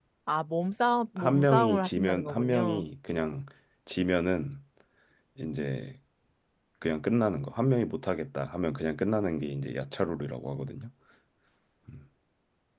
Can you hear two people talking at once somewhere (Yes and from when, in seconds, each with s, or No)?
Yes, from 1.2 s